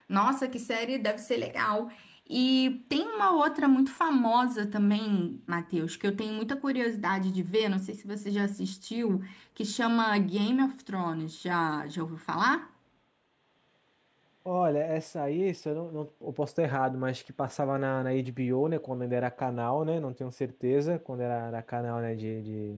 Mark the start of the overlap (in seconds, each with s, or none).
none